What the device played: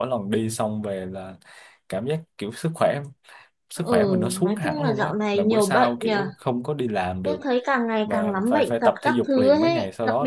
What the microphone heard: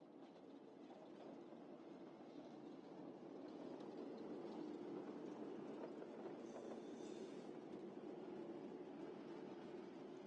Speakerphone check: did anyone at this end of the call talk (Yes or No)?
No